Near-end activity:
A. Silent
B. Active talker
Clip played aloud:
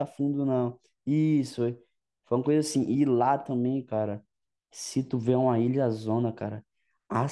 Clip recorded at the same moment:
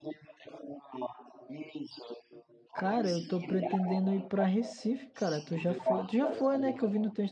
B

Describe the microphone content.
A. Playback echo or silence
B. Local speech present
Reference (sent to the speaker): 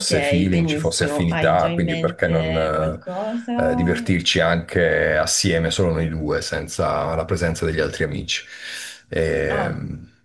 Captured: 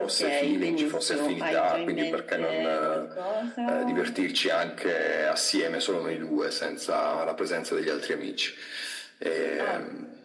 A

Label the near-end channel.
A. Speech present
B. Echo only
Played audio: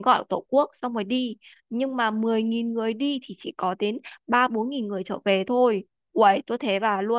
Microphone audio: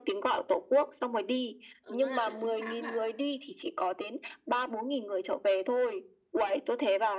A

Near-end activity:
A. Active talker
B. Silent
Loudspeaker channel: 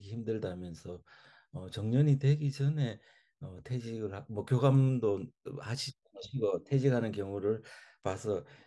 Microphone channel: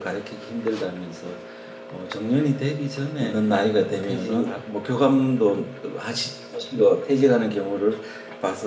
A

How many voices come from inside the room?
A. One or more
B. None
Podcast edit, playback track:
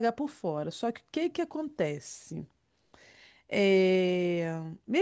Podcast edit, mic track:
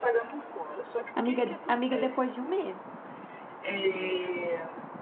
A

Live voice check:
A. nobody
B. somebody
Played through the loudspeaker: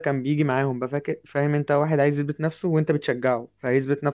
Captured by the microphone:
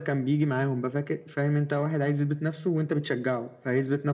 A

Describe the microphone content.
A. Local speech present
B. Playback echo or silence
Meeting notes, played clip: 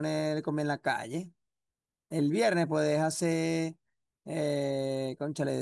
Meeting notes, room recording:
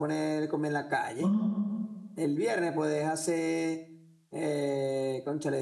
A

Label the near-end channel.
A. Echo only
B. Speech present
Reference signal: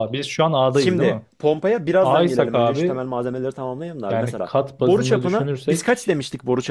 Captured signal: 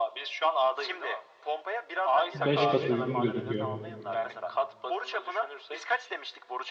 B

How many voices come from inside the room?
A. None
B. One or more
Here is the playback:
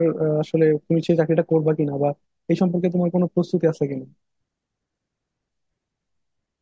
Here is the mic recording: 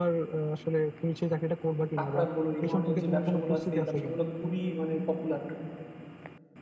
B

